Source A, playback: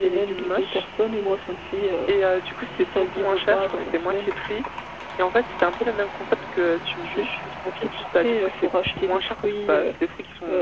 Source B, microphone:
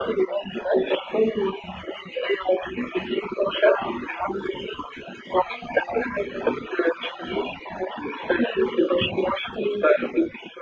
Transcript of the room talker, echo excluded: none

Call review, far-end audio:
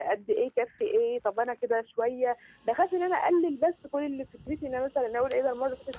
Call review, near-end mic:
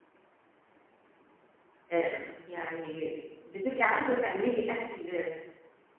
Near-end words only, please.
آآ، يعني بتبقى عايزة تعملي أكل

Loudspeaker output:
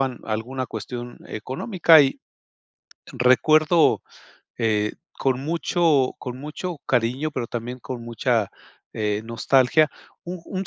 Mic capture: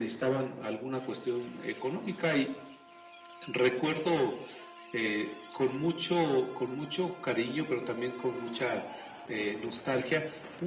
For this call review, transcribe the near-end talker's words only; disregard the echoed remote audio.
none

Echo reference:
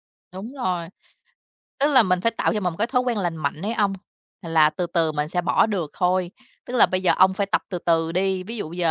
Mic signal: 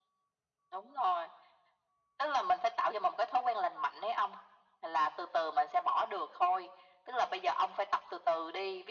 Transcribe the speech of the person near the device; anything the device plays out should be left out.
none

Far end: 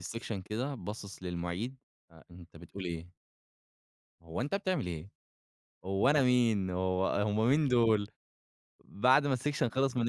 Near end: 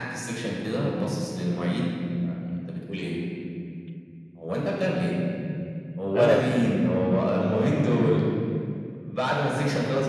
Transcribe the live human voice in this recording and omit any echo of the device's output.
آه.

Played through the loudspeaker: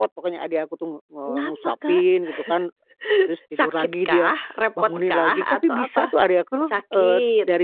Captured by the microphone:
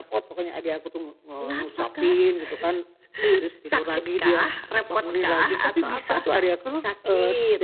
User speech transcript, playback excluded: none

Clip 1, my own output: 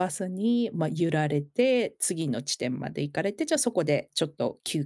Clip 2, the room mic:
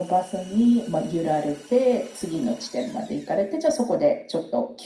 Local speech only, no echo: none

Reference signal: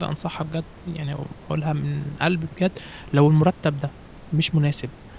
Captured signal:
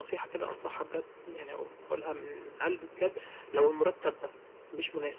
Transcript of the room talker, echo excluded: none

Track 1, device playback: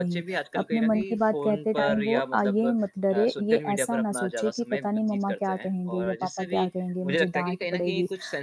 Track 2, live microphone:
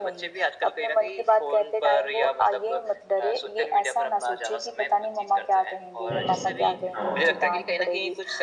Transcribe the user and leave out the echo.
हाँ। हाँ।

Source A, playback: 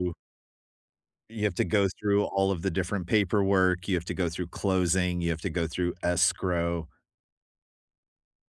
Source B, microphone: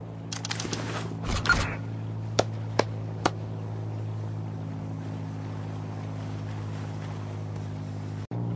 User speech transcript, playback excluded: none

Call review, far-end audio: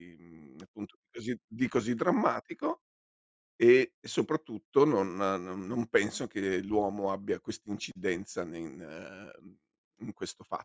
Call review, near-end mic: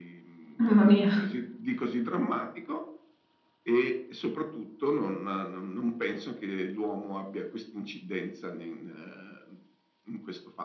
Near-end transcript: Mamma mia.

